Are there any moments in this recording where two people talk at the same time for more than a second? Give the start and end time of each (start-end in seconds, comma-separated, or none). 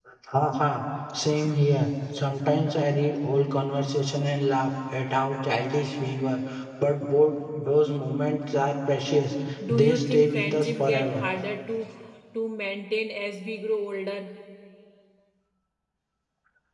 9.7-11.2